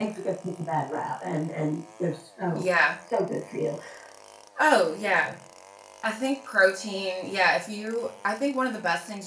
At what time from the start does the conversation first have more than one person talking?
none

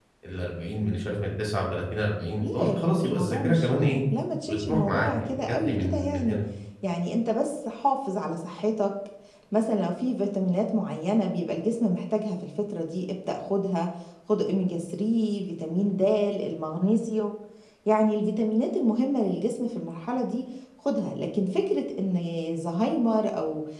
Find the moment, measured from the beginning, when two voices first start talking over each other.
2.4 s

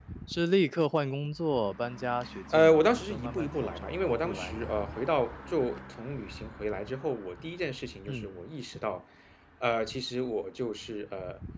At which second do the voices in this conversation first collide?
2.5 s

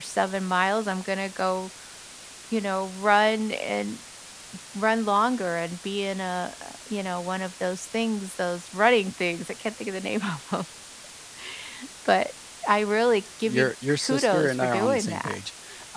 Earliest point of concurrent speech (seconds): 13.4 s

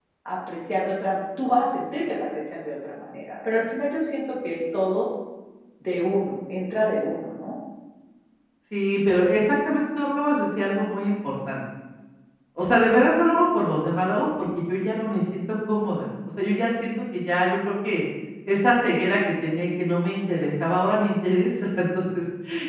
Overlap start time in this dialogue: none

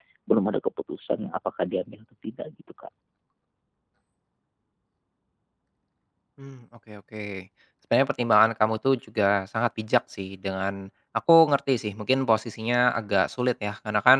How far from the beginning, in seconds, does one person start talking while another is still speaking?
none

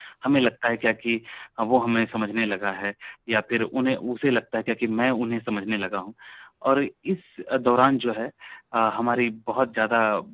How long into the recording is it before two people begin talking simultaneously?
none

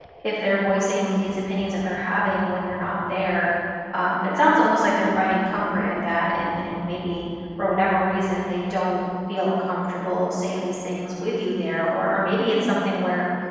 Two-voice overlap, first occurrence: none

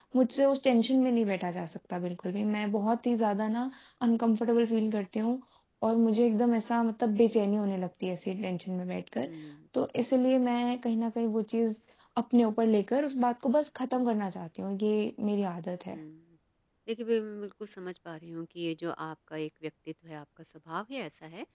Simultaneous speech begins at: none

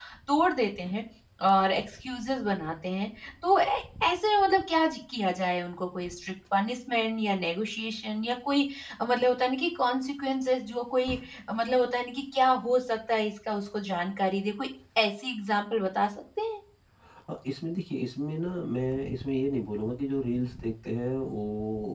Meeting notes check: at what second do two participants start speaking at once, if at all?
none

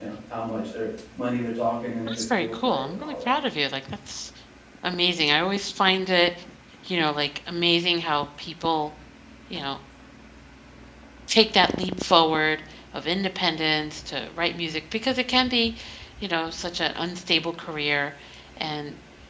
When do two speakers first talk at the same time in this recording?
2.1 s

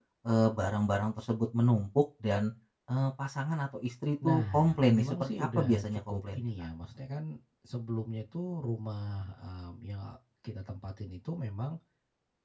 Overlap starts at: 4.2 s

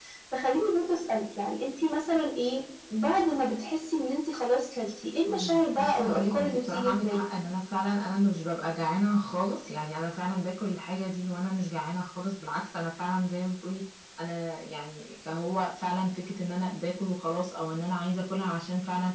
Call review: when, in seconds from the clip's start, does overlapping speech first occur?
5.3 s

